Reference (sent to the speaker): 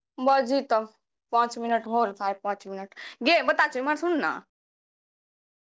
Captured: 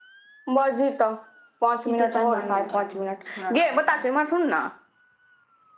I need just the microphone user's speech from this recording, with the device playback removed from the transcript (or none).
ई सब चालि हमारा नहि नीक लागै यै छीनरा वला चालि